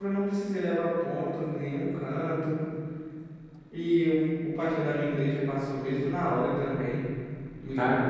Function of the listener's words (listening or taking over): listening